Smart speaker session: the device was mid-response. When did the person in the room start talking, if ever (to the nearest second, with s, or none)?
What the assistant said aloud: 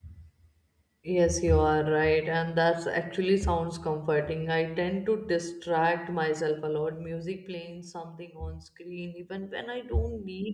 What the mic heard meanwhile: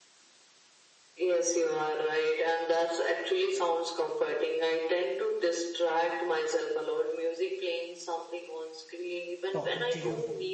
10 s